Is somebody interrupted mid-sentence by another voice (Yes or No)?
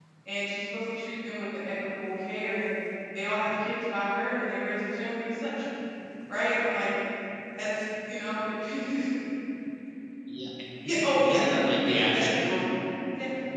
Yes